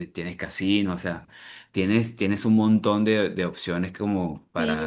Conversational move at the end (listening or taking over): taking over